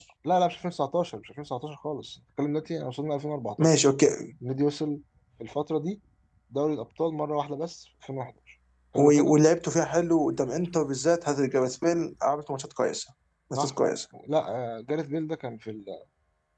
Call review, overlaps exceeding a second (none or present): none